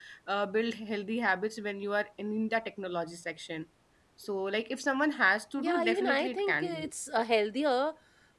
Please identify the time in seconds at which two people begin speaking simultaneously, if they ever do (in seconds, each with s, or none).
5.6 s